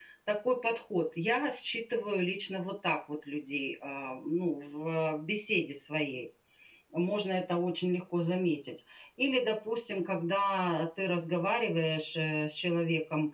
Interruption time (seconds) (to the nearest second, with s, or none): none